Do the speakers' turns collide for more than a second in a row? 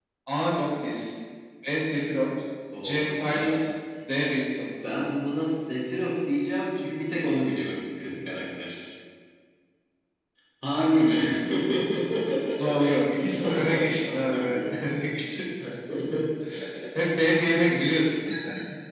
Yes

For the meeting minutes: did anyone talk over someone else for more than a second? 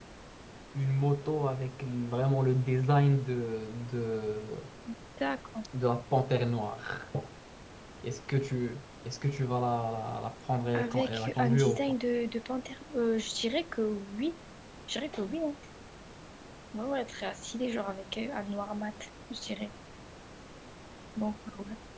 Yes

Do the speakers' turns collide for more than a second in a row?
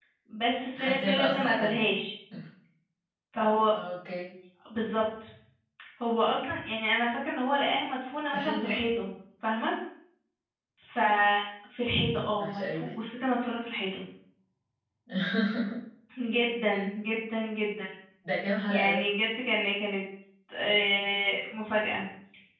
Yes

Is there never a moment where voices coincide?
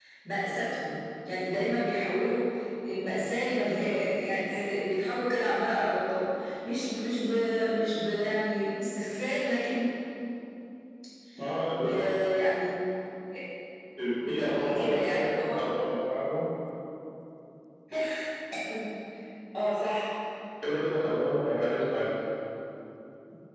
No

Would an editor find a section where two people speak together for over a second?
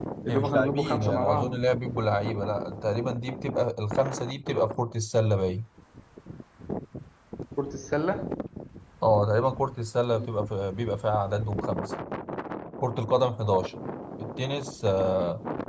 Yes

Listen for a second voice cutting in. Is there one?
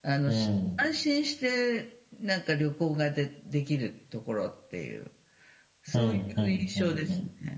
Yes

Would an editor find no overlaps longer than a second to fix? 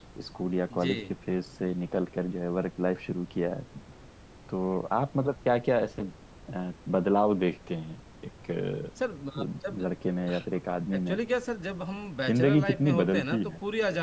No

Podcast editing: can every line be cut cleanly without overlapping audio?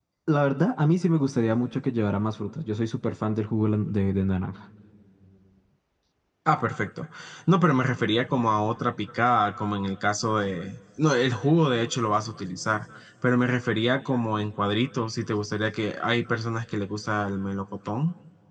Yes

